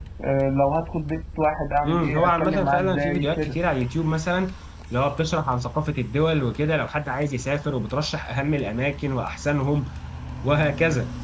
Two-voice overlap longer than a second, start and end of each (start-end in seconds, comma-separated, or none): 1.8-3.6